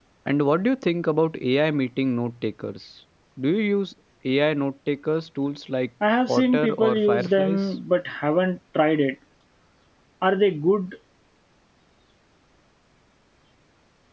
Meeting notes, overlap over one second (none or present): present